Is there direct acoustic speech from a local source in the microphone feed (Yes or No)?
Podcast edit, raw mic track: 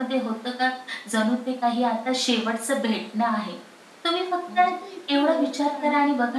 Yes